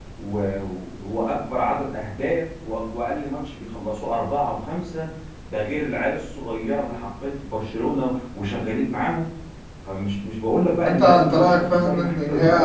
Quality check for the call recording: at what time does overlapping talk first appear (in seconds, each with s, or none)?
10.8 s